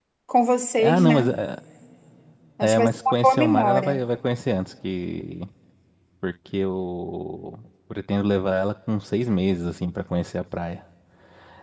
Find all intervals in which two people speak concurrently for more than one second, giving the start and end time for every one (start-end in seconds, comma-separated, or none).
2.6-4.0